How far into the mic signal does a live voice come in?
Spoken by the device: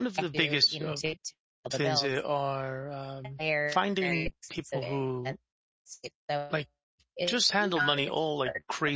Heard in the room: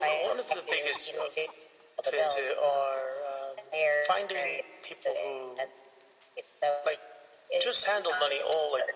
none

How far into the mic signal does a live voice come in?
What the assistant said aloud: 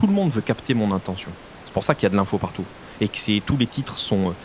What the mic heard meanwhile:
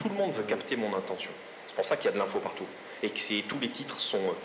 0.3 s

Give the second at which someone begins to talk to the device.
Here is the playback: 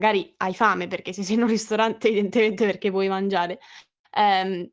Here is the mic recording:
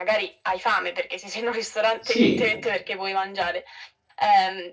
2.0 s

